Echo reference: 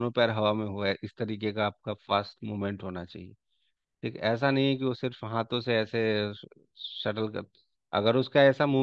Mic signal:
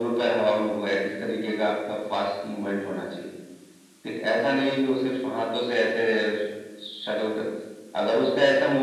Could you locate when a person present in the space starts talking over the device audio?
none

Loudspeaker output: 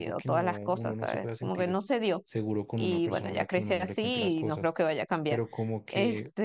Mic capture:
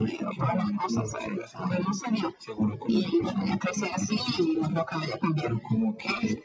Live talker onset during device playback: none

